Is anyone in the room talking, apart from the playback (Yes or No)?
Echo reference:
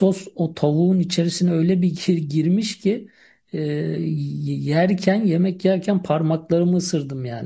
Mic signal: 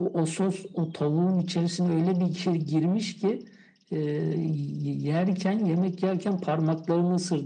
No